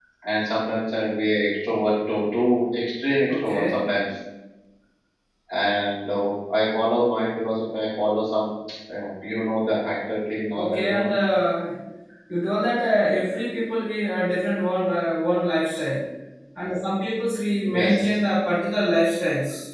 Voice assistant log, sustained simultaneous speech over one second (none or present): none